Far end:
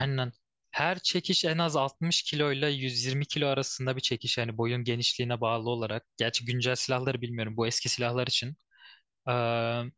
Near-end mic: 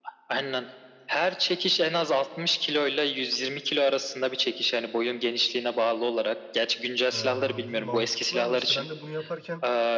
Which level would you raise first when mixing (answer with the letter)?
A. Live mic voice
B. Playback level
A